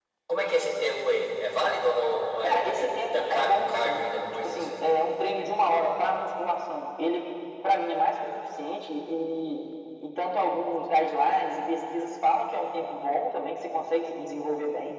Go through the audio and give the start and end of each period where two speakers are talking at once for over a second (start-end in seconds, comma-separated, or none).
2.4-4.8